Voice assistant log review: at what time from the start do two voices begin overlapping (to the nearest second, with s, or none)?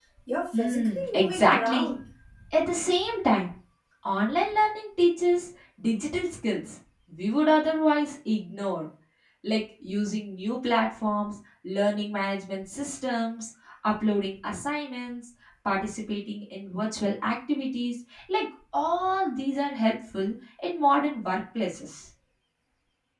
1 s